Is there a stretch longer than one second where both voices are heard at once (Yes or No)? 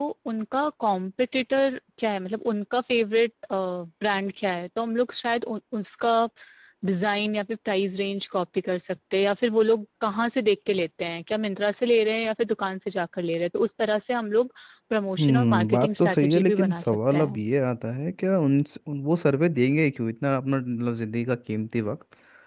Yes